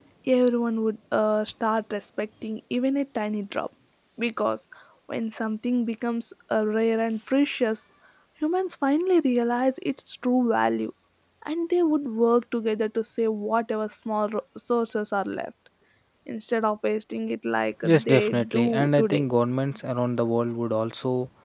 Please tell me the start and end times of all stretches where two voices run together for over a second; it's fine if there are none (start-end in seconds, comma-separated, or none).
17.8-19.2